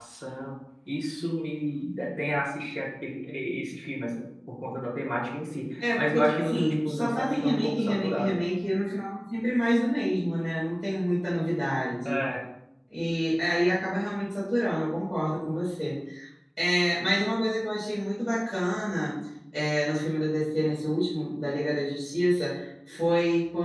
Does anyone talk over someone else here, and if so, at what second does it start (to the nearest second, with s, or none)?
6 s